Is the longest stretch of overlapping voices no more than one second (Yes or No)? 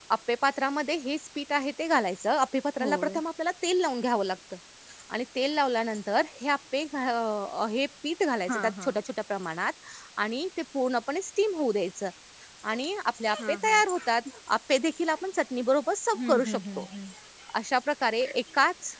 Yes